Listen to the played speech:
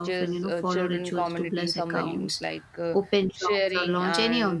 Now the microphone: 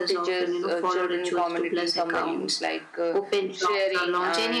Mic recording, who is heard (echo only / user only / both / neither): echo only